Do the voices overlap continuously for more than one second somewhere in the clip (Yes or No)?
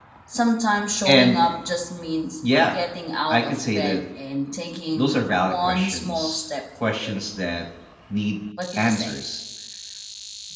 Yes